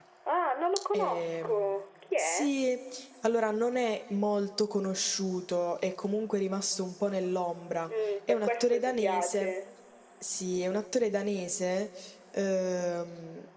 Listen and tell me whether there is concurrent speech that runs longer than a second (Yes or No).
Yes